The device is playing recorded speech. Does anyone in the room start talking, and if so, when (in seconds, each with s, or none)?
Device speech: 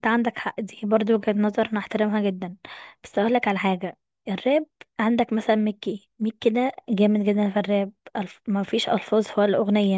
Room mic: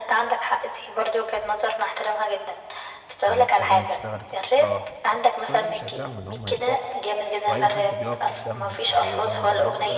3.2 s